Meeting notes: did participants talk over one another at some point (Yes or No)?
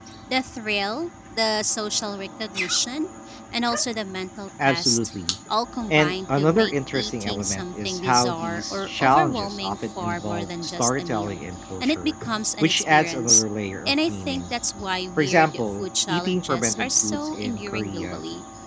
Yes